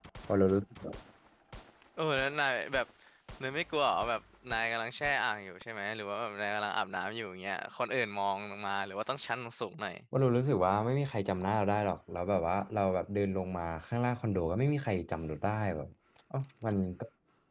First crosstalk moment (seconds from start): none

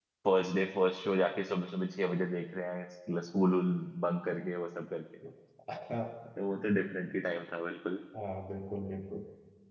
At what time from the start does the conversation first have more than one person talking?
none

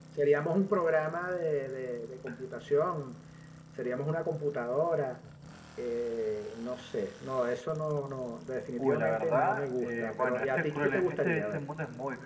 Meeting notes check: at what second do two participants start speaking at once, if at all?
8.8 s

